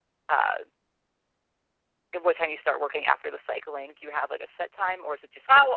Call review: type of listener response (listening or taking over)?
taking over